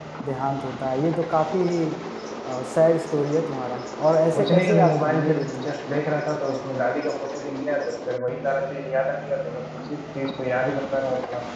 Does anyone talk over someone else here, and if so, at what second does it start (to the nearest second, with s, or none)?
4 s